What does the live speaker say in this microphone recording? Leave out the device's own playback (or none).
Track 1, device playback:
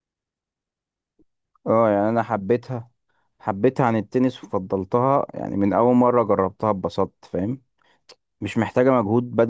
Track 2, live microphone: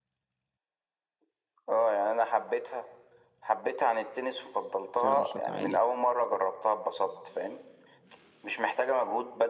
وفيها نشاط عالي